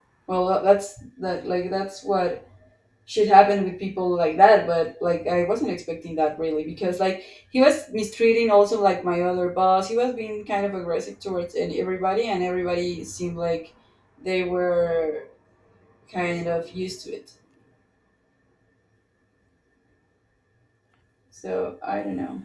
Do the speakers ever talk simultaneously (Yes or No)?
No